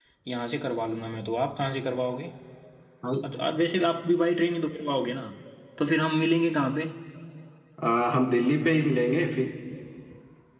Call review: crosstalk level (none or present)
none